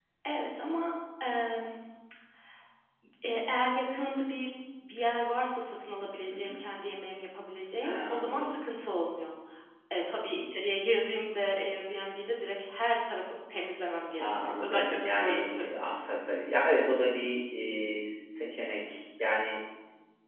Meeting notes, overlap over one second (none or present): present